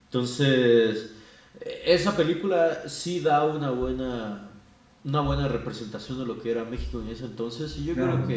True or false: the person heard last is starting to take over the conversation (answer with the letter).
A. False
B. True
A